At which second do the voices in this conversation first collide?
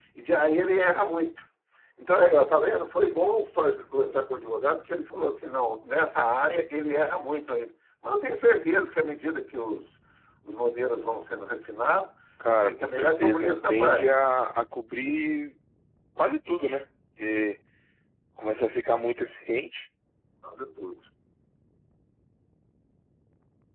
12.6 s

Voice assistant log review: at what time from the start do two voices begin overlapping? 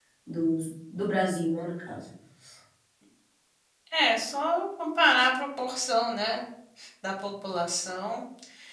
none

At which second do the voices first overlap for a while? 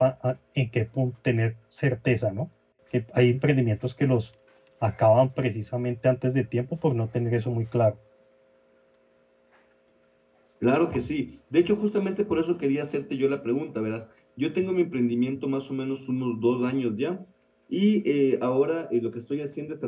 none

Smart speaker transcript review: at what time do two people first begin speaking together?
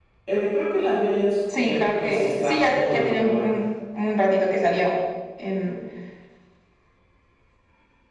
1.5 s

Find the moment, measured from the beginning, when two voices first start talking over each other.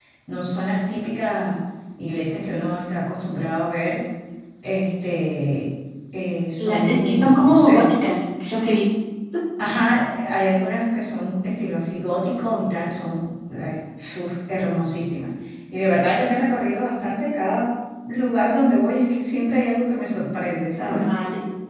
6.6 s

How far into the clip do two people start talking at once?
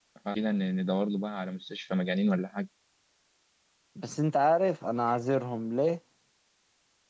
none

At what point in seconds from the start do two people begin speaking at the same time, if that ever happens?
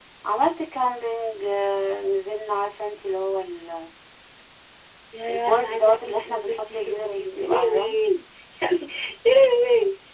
5.3 s

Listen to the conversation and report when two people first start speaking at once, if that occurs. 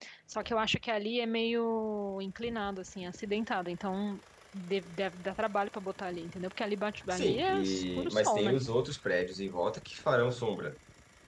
7.1 s

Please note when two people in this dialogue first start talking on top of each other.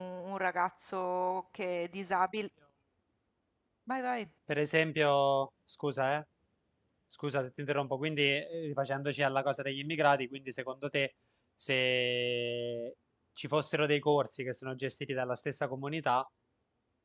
none

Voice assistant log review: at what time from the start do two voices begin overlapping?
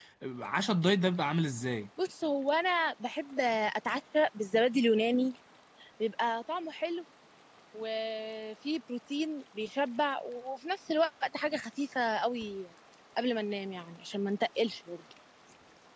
none

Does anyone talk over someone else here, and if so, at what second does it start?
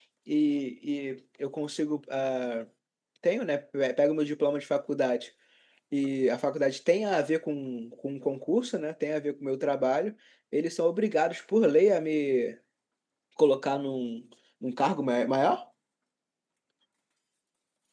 none

